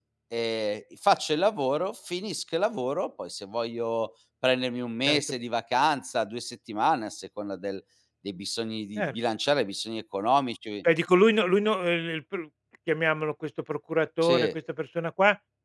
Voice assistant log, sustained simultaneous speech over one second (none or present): none